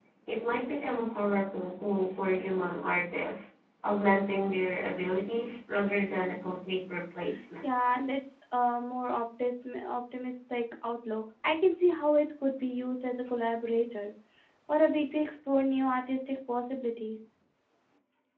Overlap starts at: none

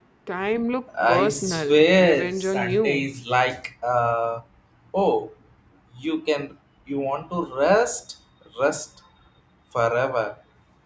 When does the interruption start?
1.1 s

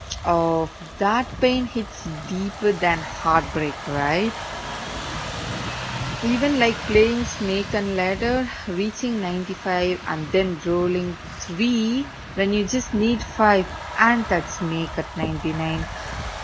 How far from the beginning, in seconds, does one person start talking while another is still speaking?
none

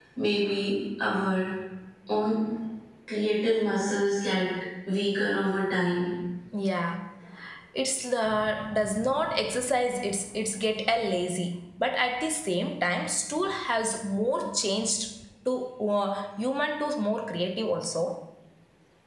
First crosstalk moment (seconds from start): none

